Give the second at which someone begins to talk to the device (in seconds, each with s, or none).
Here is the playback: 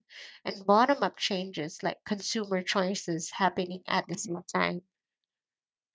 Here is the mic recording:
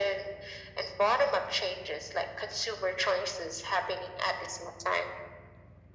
none